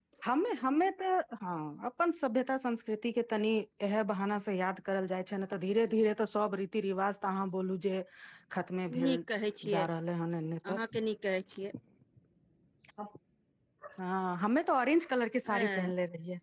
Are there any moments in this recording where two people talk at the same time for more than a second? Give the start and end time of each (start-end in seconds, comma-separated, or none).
none